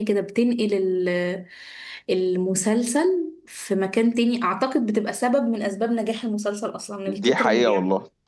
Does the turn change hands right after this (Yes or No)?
Yes